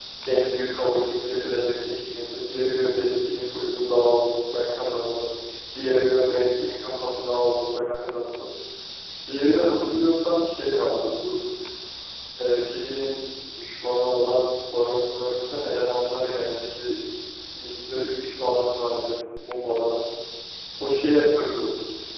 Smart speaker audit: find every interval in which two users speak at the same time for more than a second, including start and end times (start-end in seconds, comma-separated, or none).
none